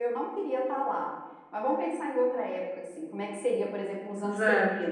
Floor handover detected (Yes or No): No